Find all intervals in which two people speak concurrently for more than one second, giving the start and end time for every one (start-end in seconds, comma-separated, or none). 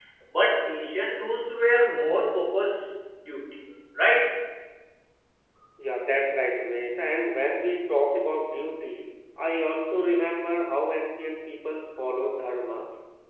none